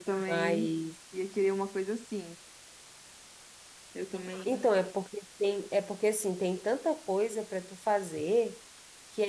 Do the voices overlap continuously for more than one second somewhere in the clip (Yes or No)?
No